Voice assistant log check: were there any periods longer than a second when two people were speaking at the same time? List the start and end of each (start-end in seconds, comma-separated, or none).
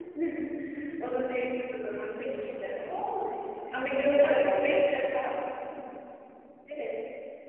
3.7-5.2